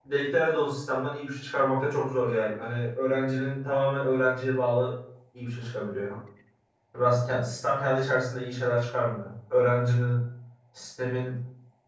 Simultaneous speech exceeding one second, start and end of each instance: none

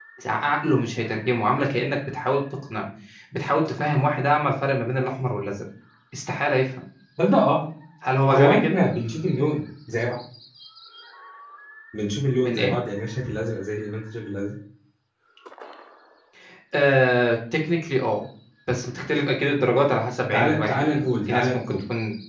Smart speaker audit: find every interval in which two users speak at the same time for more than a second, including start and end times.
20.3-21.8

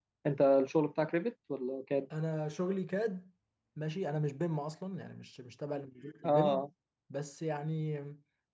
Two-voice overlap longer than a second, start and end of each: none

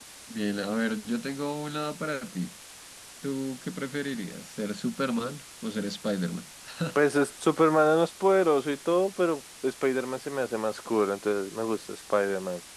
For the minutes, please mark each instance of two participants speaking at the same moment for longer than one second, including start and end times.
none

